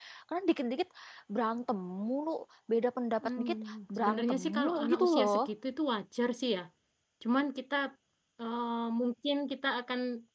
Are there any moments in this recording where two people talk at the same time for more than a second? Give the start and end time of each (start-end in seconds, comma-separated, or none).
4.0-5.4